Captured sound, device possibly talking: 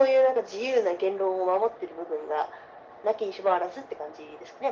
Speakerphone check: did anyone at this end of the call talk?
No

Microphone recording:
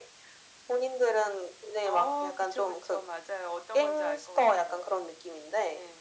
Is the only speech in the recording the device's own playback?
Yes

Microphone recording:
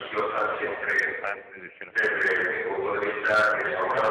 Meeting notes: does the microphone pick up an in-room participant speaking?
Yes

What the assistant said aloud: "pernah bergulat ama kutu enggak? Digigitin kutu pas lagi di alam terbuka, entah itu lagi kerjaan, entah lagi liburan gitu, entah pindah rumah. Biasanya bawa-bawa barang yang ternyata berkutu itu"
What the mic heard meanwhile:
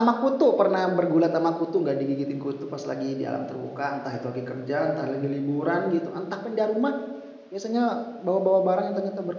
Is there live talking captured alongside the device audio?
No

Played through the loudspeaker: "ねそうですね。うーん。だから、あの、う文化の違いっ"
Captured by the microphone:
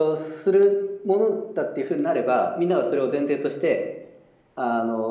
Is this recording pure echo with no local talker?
No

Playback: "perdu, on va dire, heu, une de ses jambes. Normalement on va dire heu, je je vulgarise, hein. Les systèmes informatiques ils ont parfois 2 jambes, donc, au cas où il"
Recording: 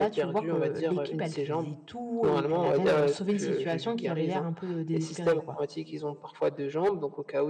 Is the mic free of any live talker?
No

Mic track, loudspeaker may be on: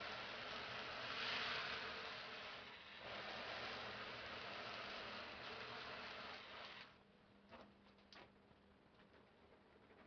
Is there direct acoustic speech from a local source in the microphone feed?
No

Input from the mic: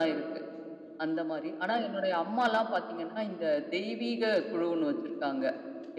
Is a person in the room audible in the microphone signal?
No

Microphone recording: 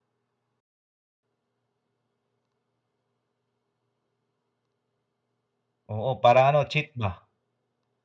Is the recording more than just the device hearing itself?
Yes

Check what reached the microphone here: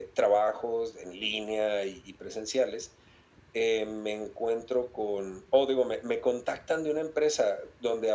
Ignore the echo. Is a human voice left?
No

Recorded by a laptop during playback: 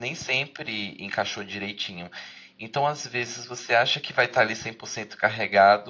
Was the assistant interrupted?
Yes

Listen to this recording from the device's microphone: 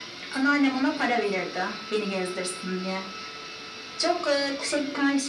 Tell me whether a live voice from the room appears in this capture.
No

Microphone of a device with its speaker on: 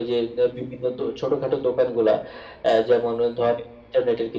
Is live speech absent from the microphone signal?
Yes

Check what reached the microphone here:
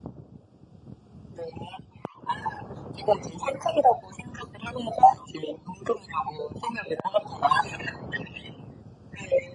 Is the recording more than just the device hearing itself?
No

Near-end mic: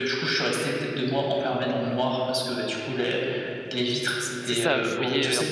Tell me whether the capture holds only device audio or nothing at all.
No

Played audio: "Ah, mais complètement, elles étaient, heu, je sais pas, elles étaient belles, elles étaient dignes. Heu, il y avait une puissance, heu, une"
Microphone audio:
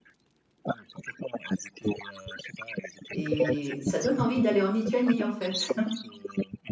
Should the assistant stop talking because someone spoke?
Yes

